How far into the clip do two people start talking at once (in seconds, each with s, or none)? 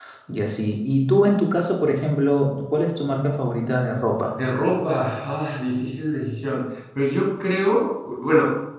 none